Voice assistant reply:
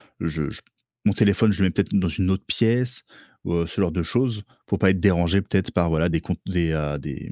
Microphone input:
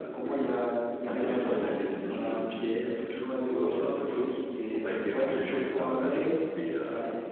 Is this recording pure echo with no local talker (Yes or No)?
No